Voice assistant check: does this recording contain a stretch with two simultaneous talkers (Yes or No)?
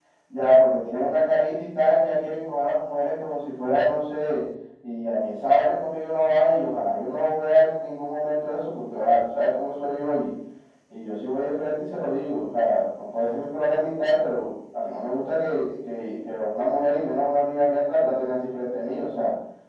No